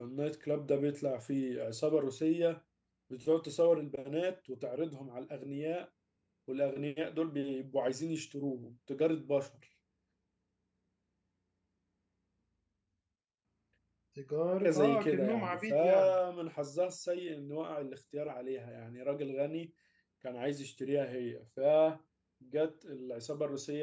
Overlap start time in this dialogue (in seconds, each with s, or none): 14.6 s